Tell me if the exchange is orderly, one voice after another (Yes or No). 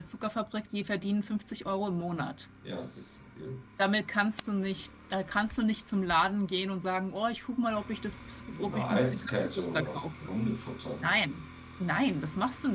No